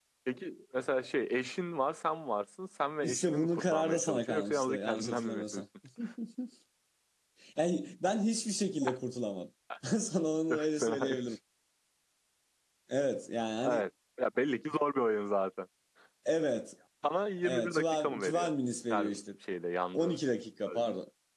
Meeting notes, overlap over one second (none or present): present